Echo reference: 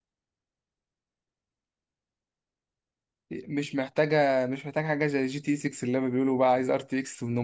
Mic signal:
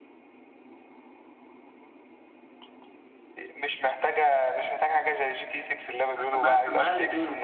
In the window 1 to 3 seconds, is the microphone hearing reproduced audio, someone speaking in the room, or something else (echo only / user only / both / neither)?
neither